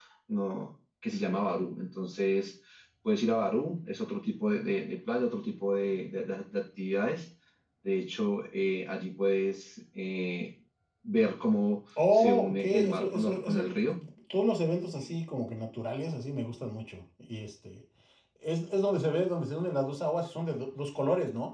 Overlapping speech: Yes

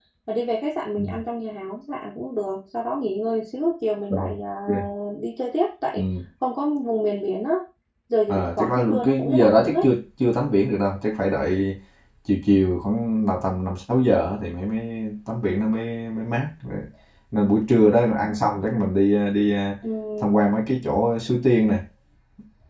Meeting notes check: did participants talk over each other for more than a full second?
Yes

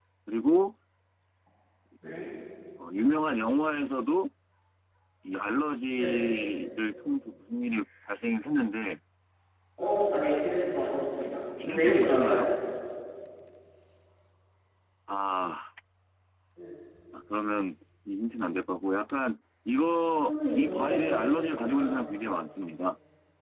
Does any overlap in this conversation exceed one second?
Yes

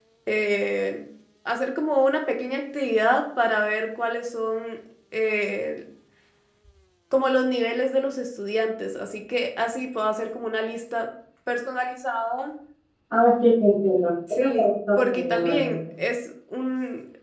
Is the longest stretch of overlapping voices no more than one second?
No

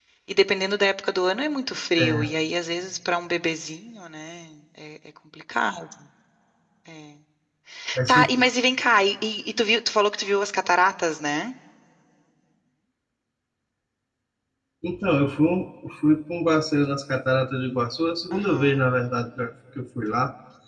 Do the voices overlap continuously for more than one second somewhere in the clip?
No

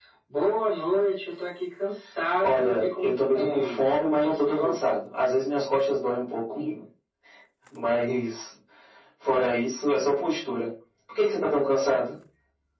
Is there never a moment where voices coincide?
No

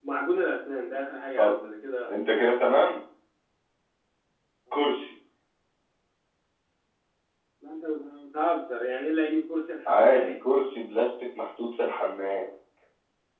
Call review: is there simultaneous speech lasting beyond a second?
No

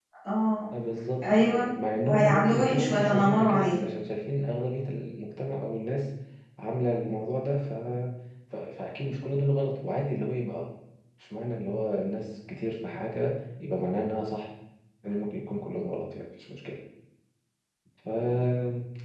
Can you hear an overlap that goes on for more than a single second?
Yes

